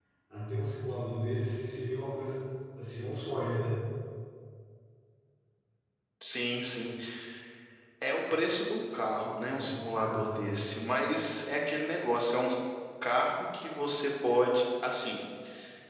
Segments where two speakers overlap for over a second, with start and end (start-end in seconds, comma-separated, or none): none